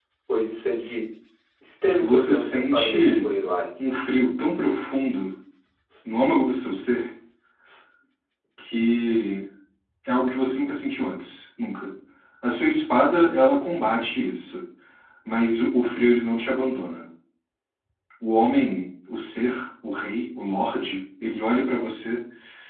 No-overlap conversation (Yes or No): No